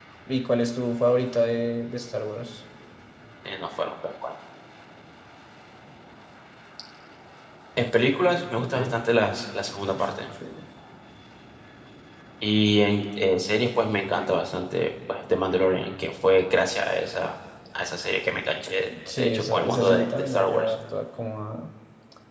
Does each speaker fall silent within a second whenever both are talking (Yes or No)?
No